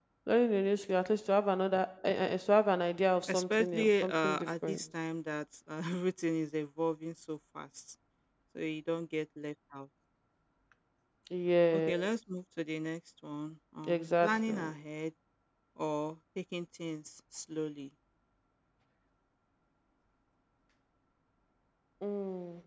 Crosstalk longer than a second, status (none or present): present